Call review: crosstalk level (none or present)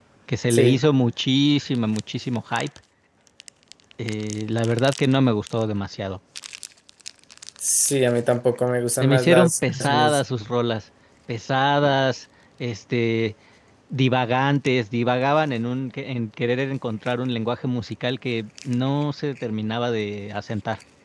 present